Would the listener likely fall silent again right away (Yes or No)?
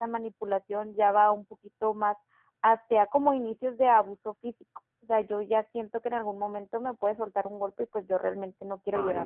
No